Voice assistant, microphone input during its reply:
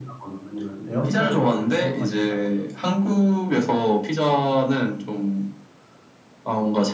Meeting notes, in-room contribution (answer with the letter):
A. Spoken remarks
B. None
B